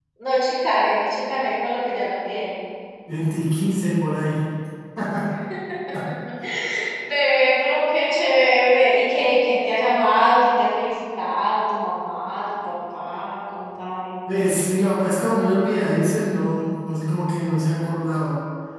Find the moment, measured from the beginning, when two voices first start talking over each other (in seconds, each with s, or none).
none